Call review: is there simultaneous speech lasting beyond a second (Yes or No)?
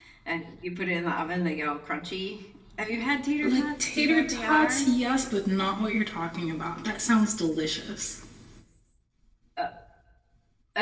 Yes